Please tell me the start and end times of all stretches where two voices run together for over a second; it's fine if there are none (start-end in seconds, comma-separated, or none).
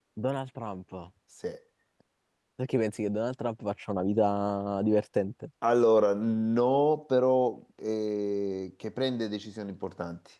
none